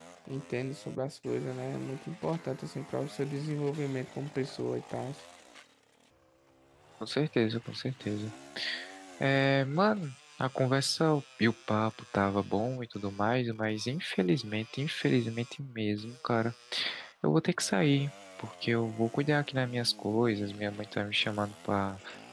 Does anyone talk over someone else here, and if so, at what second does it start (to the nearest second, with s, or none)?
none